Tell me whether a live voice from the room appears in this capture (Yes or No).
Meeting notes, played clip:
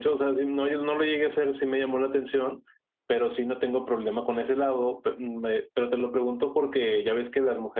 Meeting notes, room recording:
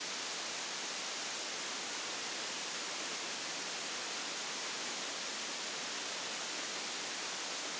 No